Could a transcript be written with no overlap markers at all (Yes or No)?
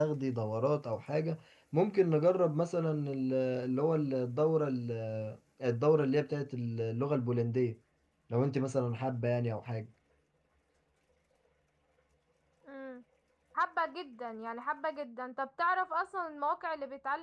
Yes